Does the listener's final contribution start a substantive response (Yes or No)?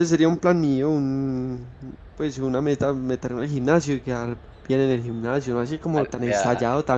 No